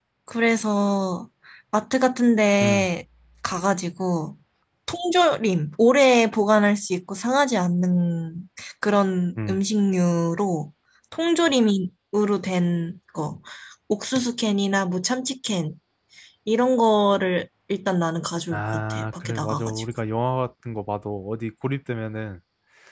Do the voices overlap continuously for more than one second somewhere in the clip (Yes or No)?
Yes